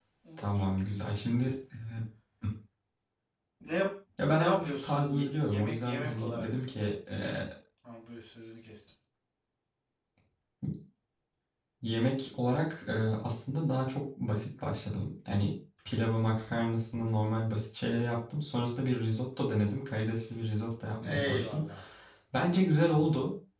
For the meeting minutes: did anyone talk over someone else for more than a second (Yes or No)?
Yes